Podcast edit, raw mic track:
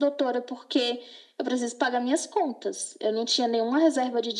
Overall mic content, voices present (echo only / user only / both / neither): echo only